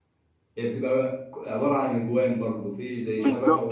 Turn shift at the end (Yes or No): Yes